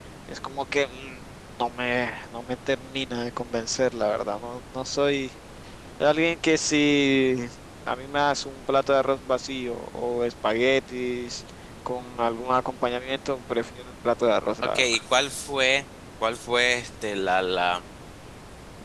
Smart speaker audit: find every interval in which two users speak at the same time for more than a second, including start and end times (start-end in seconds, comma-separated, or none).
none